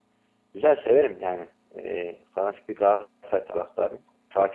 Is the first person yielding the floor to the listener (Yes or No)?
Yes